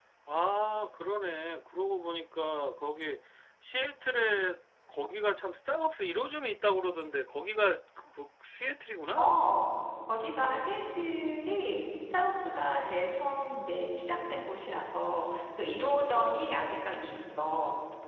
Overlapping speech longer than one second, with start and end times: none

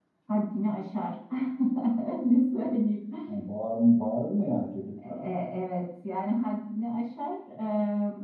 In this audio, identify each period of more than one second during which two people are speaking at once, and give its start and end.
none

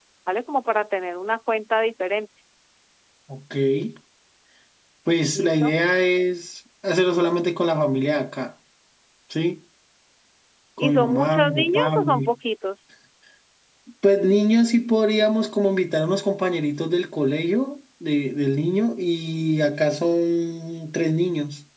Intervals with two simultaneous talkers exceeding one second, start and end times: 10.8-12.3

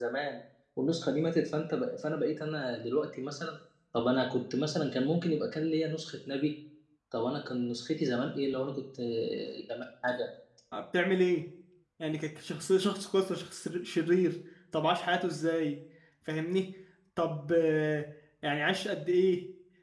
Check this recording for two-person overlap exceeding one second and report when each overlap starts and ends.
none

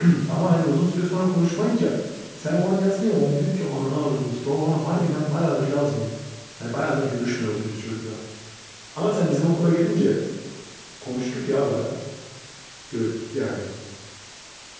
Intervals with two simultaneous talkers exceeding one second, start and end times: none

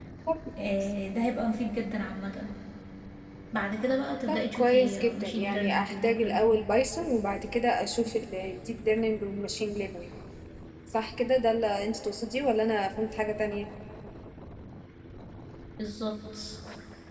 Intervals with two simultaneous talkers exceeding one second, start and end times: 4.3-6.5

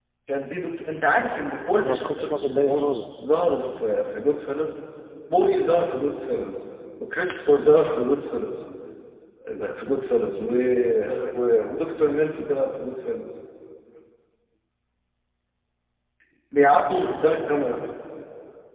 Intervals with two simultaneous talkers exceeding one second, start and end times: 1.8-3.2

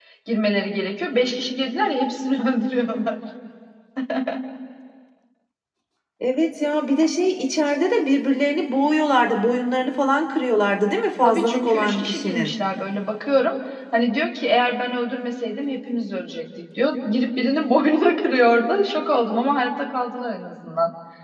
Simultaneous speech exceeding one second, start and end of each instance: 11.2-12.5

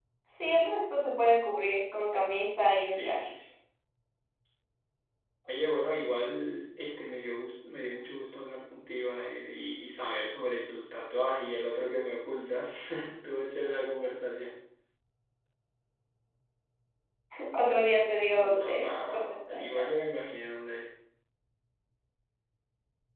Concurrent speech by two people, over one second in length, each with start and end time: 18.3-19.9

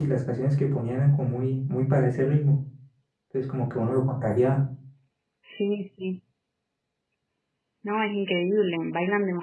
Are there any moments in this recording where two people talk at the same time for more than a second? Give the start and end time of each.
none

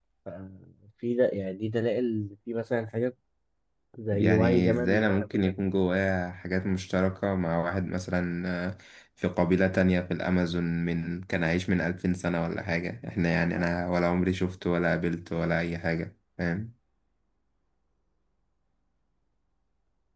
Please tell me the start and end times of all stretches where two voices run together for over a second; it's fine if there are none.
4.1-5.5

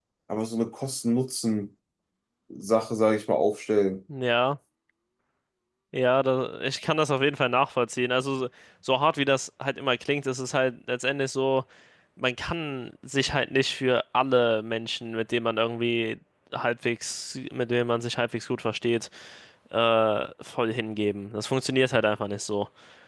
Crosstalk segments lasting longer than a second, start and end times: none

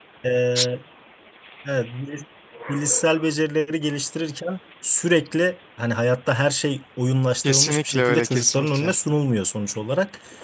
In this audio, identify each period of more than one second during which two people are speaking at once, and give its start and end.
7.4-8.9

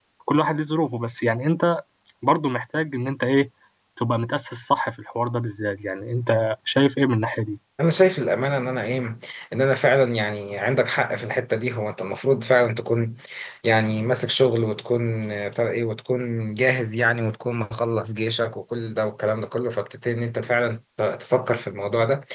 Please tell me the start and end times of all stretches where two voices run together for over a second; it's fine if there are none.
none

